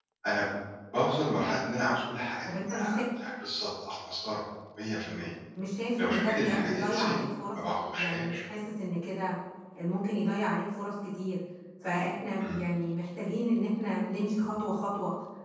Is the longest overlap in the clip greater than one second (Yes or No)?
Yes